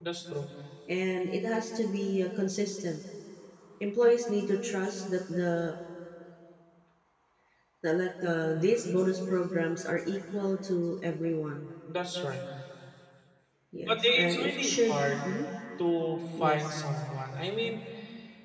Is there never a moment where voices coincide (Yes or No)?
No